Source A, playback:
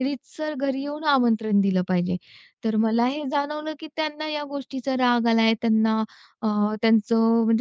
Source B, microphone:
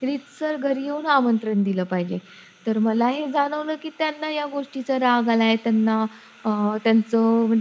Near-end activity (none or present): none